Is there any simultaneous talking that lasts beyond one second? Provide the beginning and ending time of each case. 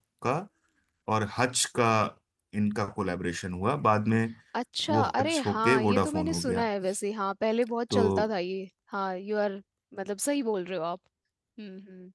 4.9-6.7

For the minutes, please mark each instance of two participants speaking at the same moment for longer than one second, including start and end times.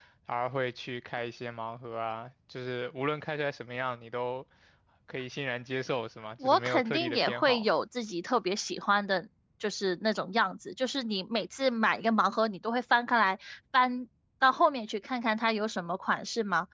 6.4-7.7

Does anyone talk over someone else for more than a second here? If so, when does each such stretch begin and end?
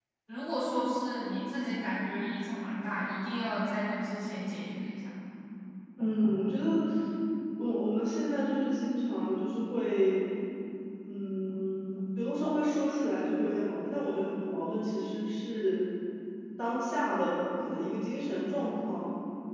none

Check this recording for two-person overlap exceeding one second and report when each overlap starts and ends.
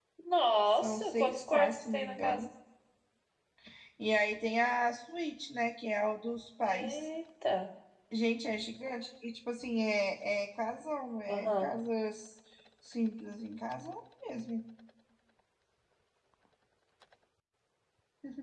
0.8-2.4

